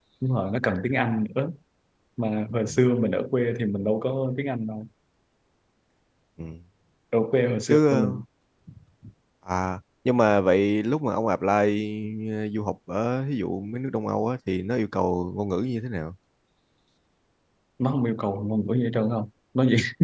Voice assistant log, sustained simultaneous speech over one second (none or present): none